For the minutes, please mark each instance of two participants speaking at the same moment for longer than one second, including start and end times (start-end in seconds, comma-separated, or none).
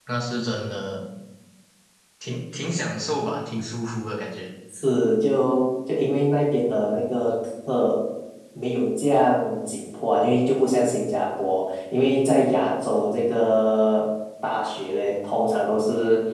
none